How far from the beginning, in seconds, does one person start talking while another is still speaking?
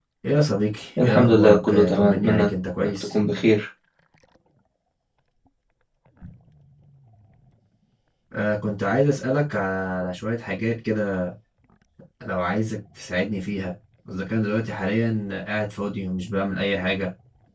1.0 s

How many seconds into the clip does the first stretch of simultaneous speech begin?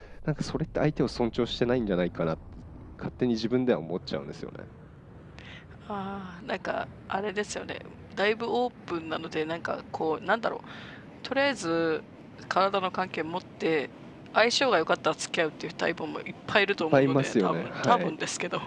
16.9 s

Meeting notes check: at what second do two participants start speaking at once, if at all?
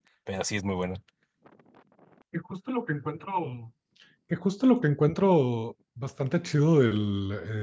none

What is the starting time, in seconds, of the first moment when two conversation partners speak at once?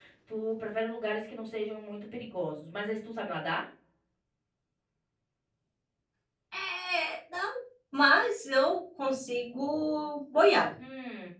none

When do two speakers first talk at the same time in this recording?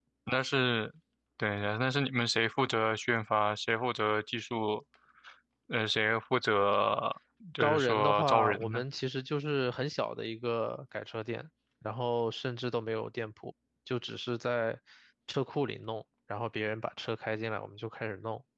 7.6 s

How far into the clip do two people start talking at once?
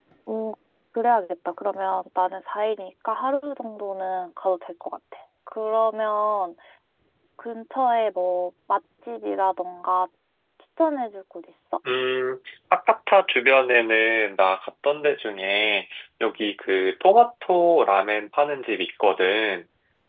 none

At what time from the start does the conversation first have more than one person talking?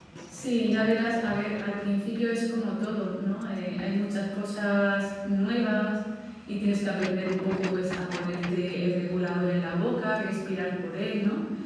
none

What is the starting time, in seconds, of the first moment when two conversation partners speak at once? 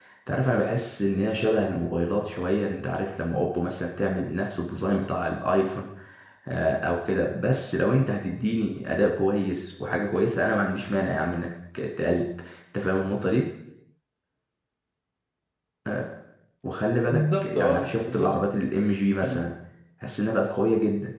17.1 s

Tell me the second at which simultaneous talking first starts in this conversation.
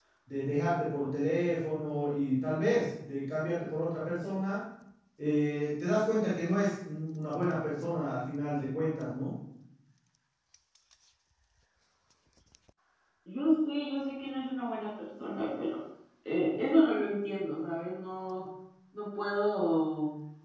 none

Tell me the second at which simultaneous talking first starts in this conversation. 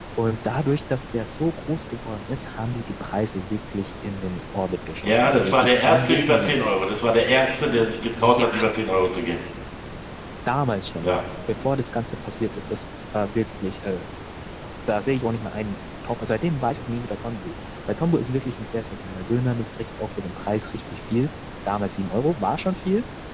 5.0 s

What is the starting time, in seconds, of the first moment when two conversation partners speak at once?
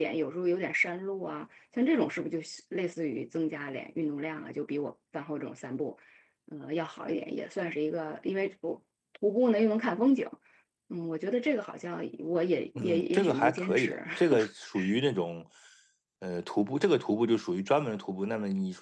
12.8 s

